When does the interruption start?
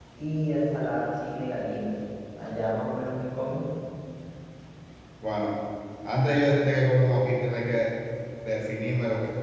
none

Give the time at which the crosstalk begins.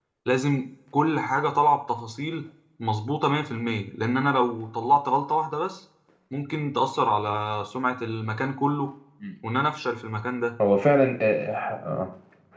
none

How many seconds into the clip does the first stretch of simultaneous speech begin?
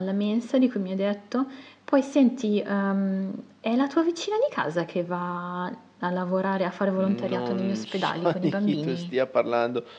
7.0 s

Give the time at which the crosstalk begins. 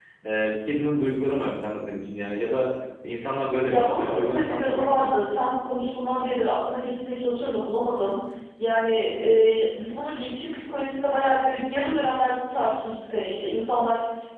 3.7 s

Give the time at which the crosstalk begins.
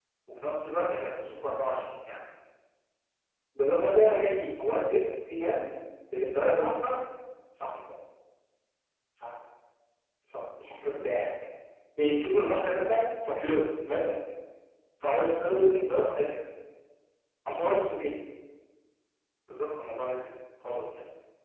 none

